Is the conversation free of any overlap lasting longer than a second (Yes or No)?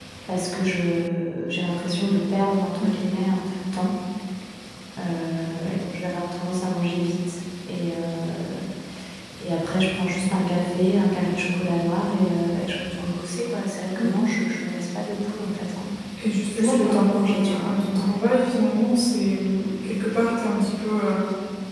No